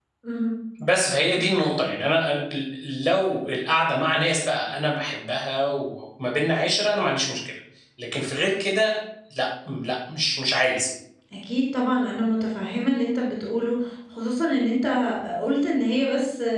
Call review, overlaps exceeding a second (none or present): none